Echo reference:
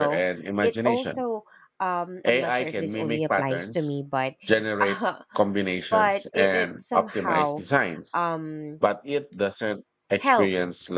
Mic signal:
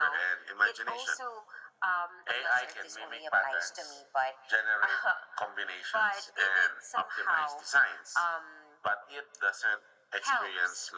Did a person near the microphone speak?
No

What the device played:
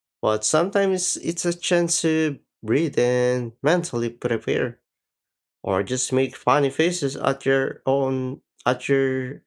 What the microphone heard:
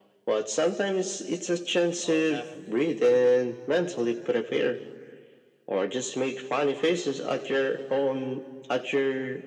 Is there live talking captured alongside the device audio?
Yes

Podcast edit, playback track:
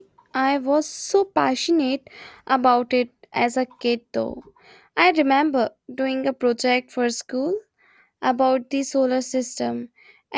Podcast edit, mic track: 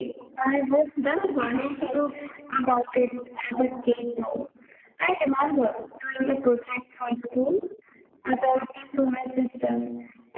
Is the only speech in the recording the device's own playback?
No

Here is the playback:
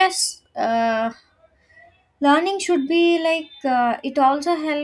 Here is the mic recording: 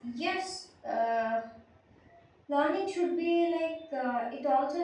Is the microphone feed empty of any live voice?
Yes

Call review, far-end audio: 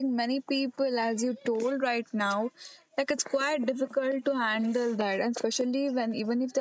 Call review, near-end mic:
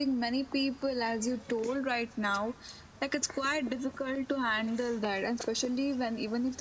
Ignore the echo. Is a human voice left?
No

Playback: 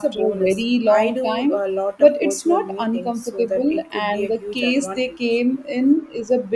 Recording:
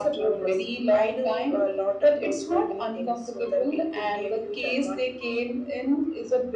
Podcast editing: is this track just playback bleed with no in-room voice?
Yes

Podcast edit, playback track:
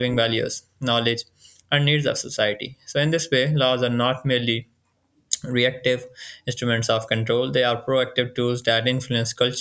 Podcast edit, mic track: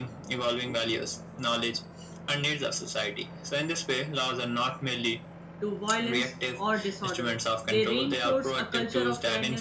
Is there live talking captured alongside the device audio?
Yes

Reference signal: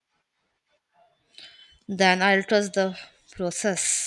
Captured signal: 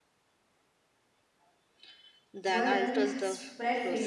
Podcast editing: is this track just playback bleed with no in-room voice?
No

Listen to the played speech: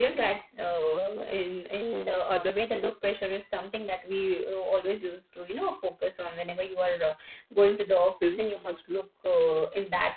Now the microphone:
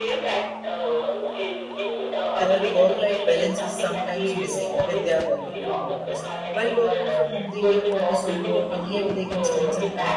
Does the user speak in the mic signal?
Yes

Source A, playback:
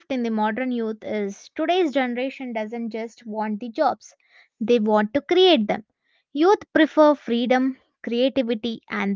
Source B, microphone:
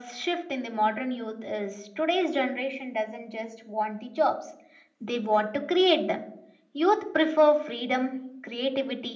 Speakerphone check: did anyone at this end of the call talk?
No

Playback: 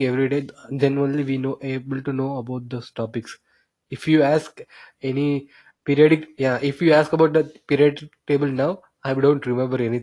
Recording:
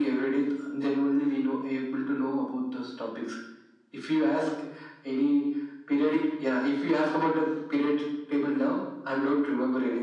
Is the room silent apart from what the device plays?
Yes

